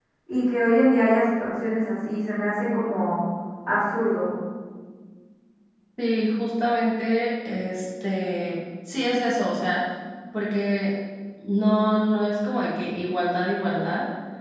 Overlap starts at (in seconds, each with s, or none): none